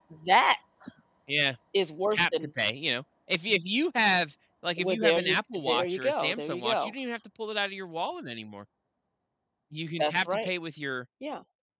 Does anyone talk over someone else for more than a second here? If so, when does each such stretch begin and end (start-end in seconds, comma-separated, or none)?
4.8-6.9